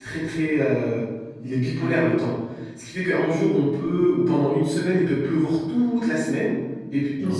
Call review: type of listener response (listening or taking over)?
listening